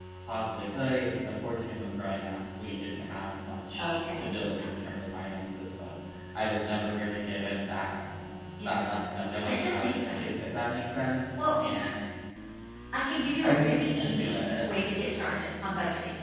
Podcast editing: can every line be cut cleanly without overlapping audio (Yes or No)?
No